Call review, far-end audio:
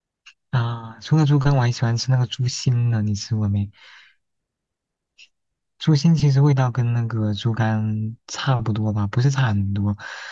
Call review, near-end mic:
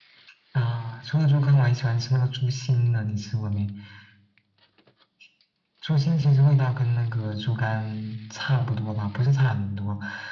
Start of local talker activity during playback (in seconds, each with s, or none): none